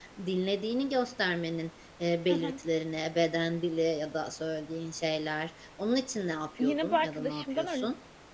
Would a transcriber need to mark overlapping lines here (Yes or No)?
Yes